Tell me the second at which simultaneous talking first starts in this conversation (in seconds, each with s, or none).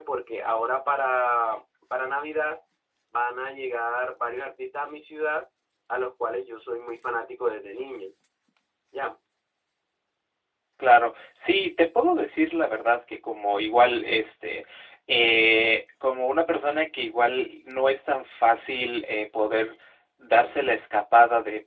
none